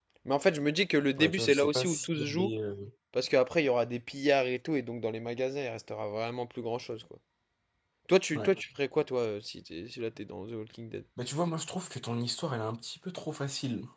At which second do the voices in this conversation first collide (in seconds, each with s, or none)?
1.2 s